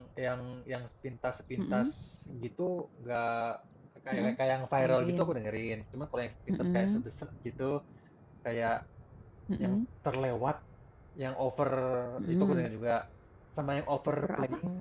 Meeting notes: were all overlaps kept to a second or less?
Yes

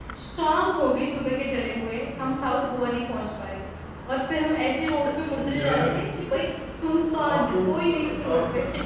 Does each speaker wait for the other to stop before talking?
No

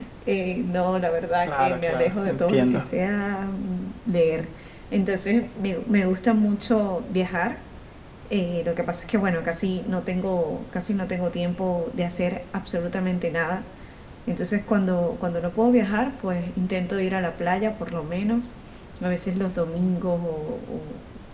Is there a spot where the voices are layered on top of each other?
Yes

